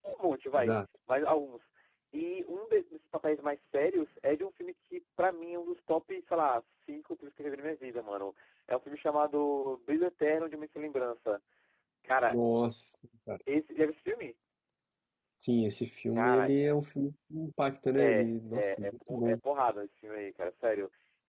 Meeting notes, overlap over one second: present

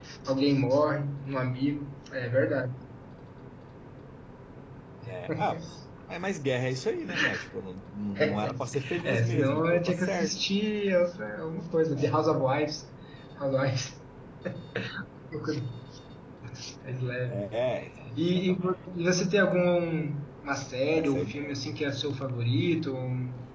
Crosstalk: present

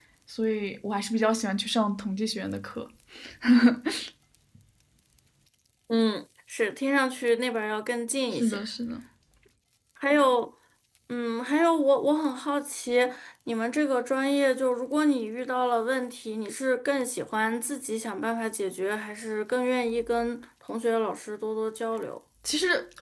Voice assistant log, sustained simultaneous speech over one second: none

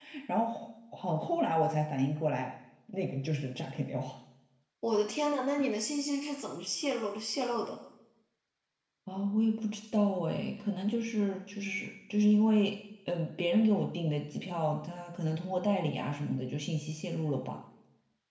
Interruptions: none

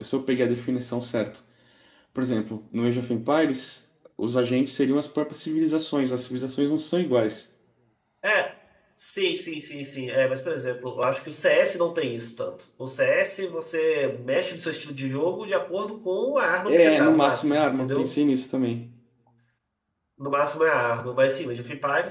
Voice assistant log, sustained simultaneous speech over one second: present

